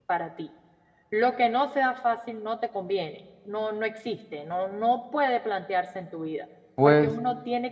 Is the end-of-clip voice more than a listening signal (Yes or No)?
No